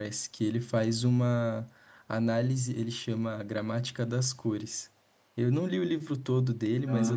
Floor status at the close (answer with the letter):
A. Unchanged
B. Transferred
A